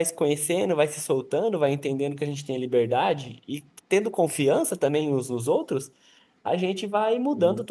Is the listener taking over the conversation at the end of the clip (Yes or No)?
No